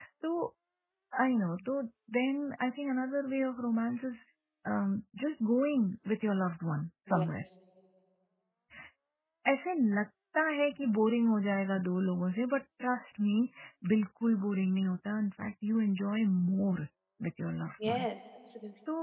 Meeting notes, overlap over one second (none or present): none